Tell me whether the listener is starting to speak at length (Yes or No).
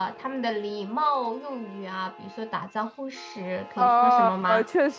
Yes